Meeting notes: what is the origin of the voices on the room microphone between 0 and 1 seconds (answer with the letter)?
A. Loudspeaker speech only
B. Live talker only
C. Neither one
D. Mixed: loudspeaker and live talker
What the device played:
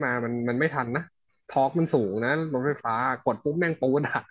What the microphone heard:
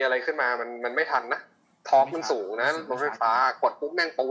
A